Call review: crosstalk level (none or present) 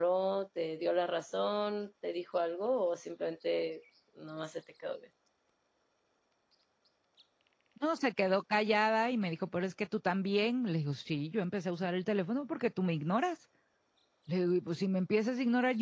none